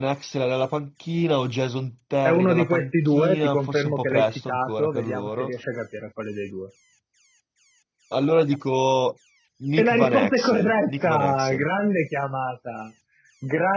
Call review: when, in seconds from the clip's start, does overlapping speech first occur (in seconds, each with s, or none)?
2.2 s